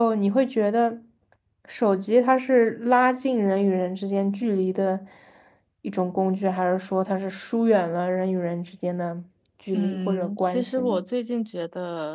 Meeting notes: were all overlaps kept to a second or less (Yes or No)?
No